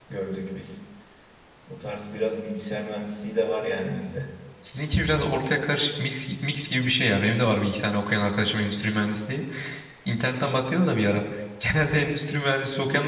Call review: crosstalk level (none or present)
none